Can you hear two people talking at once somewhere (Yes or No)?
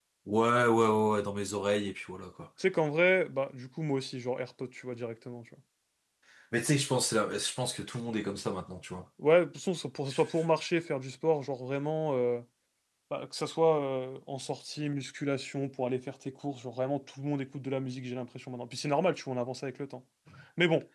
No